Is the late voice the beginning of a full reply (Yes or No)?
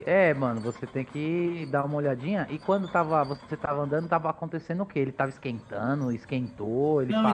Yes